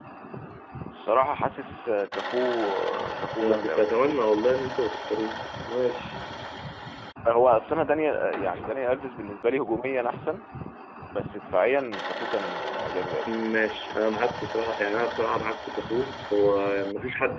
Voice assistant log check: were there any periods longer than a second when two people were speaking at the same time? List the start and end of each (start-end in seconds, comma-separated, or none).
none